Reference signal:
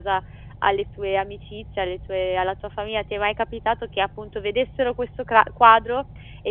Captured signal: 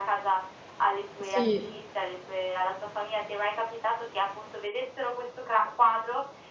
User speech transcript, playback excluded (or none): Sì,